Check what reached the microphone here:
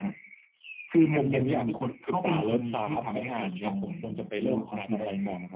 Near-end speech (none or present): present